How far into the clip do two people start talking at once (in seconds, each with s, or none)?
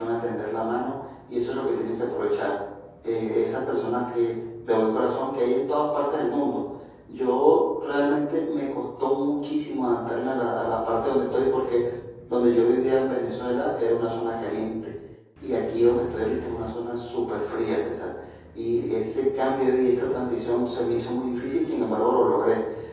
none